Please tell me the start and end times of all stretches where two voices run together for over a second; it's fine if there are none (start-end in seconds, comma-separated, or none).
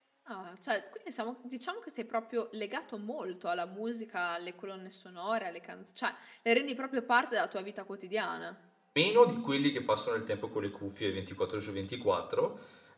none